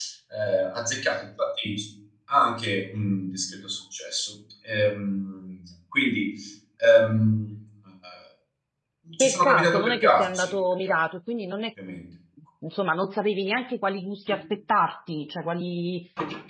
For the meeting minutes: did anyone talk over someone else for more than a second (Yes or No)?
Yes